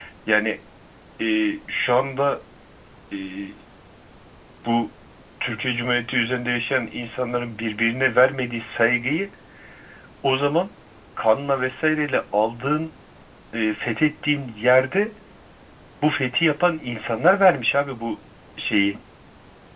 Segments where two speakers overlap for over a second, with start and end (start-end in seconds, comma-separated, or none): none